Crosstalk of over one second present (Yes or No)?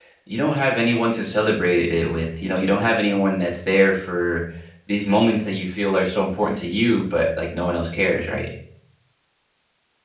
No